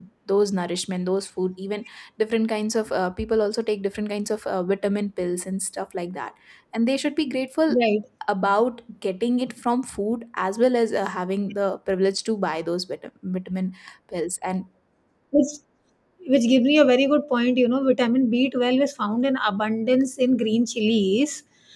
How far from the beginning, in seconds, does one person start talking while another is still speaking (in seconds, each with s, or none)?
none